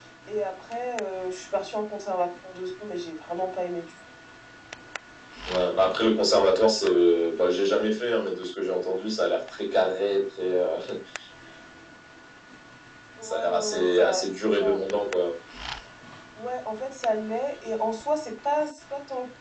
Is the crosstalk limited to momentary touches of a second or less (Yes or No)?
No